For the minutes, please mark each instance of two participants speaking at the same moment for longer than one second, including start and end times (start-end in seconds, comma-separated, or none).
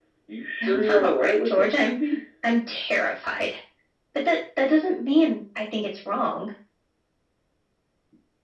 0.6-1.9